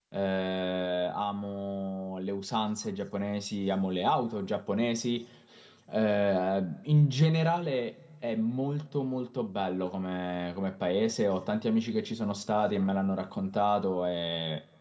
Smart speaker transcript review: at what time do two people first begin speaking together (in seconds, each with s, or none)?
none